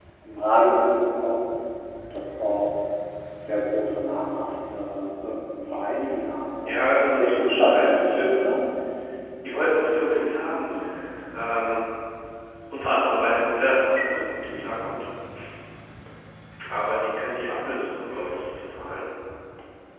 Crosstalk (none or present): present